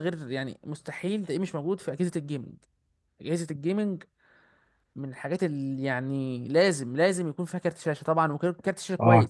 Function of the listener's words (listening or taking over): taking over